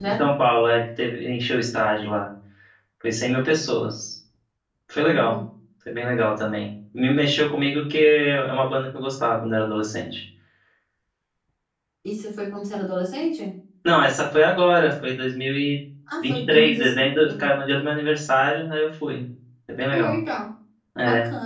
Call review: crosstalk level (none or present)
present